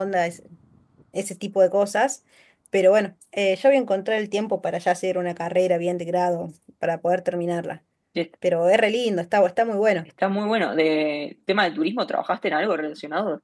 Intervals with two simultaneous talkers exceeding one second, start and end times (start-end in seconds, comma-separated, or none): none